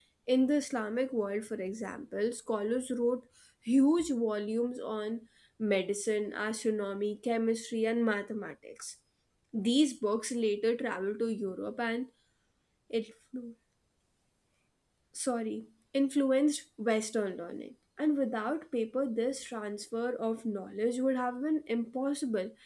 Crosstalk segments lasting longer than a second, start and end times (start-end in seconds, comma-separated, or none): none